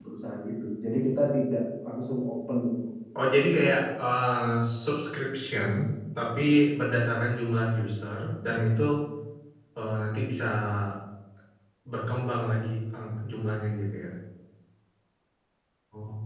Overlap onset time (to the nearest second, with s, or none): none